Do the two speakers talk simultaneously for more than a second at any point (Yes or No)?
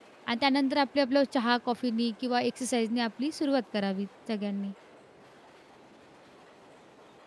No